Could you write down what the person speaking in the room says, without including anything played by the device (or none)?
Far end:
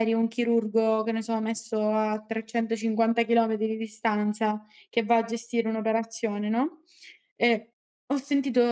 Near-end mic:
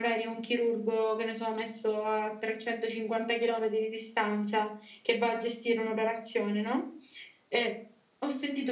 none